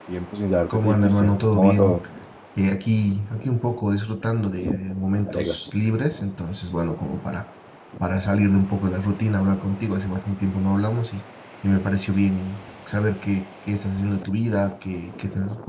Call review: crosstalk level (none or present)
present